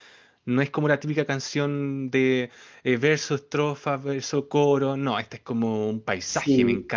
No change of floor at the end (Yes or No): No